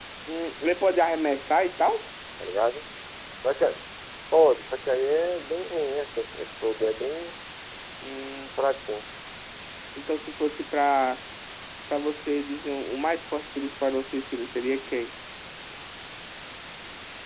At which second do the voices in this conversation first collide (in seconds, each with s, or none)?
none